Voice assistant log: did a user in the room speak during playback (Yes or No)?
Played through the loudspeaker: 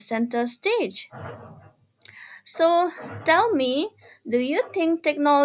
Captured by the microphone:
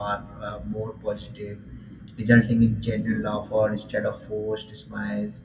Yes